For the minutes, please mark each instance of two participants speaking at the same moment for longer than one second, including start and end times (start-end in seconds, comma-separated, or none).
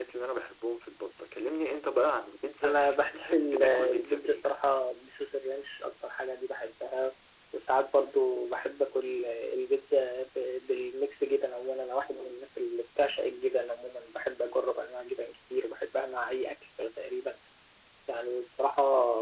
2.6-4.5